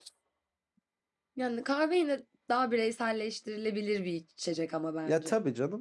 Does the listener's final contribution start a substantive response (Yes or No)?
Yes